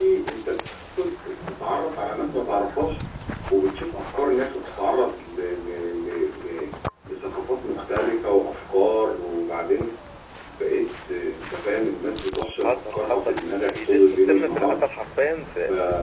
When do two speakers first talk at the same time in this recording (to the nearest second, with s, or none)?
13 s